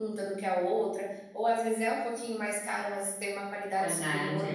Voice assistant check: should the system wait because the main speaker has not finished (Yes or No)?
Yes